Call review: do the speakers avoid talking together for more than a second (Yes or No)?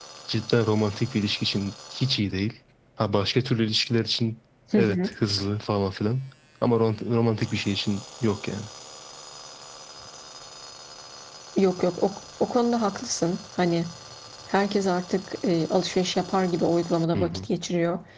Yes